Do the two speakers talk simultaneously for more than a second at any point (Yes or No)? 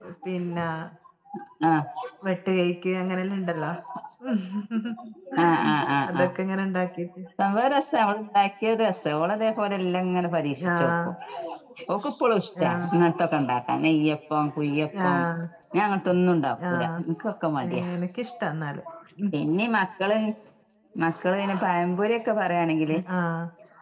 No